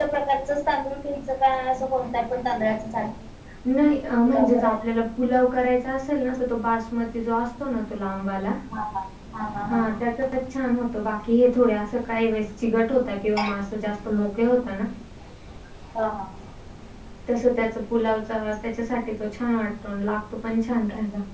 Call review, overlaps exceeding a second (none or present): none